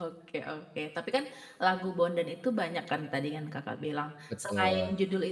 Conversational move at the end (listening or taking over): listening